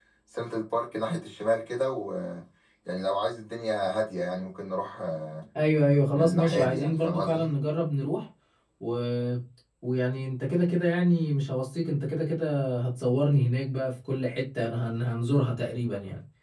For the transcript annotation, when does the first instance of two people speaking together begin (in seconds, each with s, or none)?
6.1 s